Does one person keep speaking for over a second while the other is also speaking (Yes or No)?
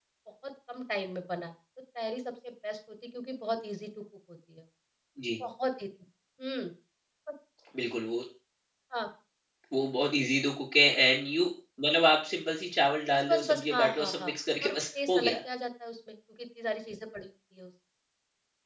Yes